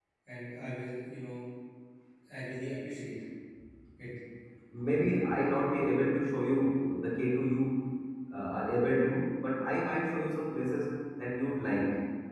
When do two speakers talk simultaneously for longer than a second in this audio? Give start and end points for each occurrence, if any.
none

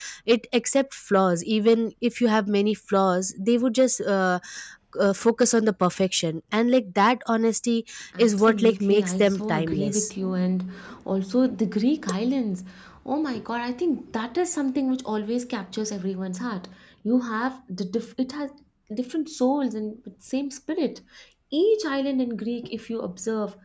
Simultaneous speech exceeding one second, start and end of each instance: 8.2-10.1

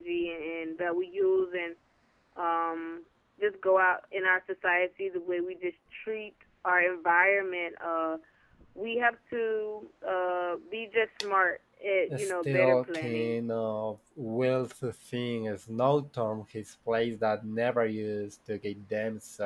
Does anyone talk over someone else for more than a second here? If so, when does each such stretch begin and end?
12.2-13.4

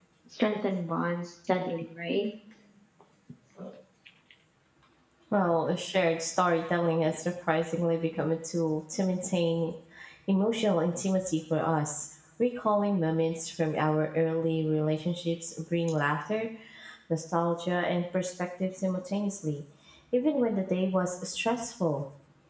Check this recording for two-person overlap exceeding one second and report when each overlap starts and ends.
none

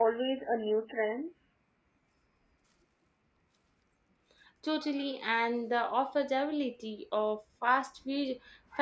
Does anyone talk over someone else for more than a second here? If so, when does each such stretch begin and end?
none

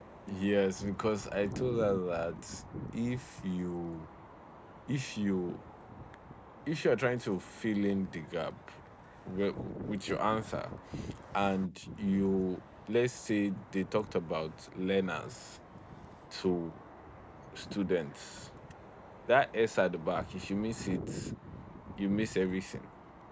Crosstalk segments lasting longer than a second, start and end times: none

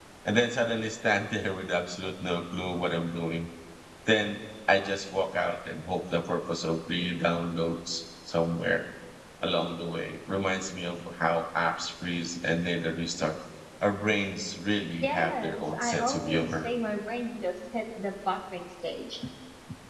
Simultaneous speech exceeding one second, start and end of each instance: 15.0-16.7

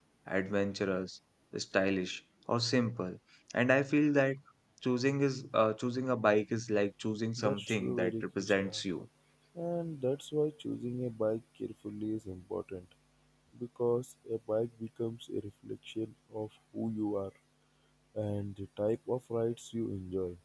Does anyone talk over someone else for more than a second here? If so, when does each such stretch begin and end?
7.4-8.8

